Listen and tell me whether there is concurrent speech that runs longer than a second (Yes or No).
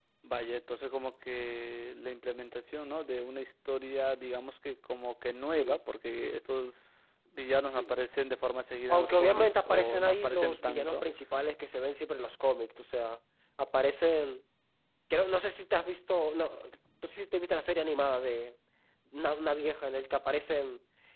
Yes